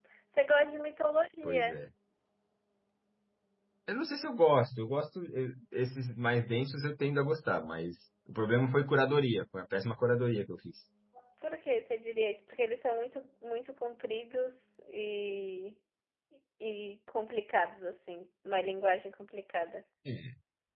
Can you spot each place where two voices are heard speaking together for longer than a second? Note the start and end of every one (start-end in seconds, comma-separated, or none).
none